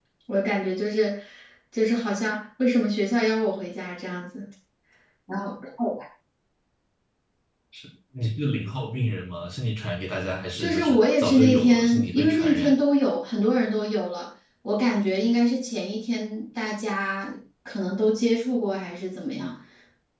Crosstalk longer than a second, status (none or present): present